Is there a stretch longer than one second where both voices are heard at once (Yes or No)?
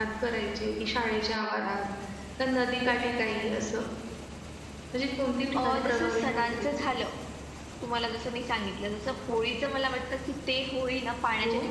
Yes